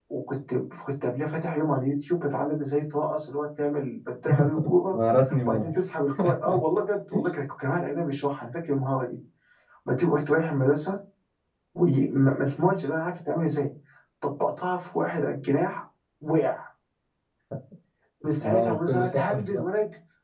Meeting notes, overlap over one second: present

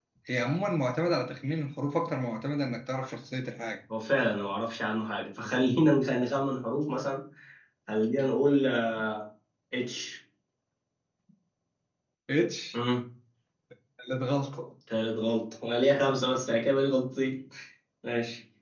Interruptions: none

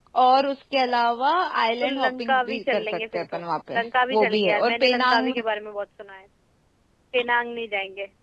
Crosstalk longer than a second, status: present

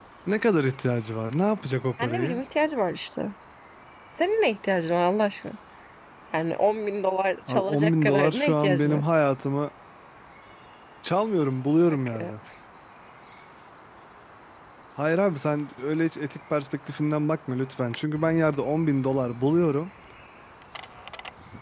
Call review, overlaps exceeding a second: present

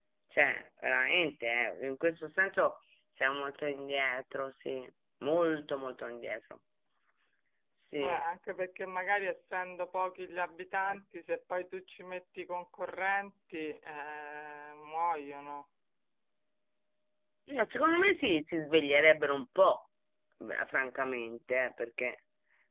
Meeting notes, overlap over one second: none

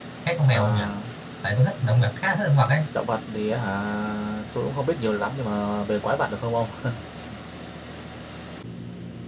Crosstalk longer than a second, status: none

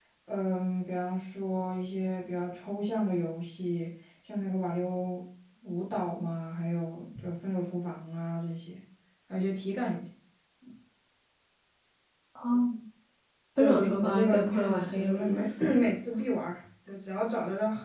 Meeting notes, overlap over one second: present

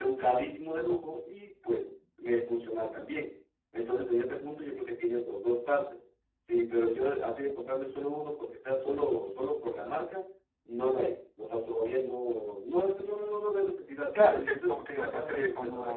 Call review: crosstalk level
present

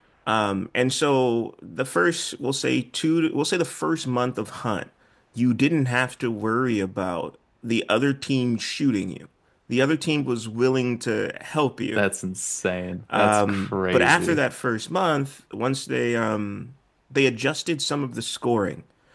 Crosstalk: present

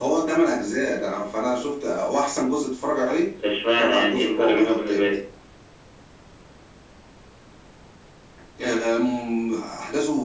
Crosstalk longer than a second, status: present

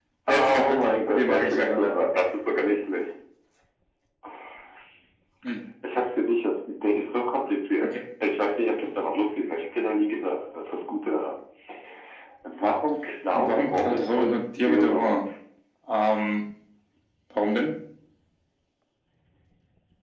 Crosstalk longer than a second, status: present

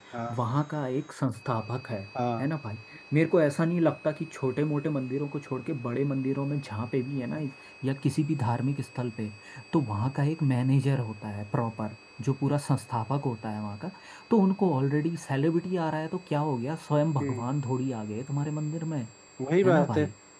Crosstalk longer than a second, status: none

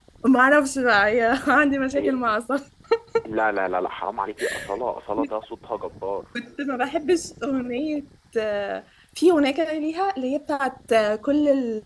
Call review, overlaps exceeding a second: none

